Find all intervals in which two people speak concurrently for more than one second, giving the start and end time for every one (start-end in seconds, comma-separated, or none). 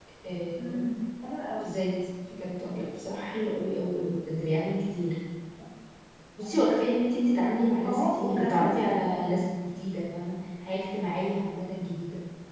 7.8-9.4